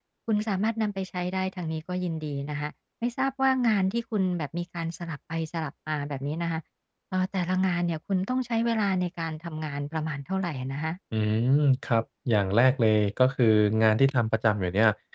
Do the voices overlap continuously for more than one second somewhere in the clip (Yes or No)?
No